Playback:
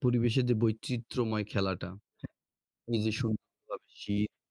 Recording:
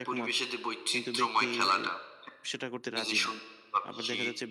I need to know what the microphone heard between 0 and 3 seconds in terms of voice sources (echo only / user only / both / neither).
both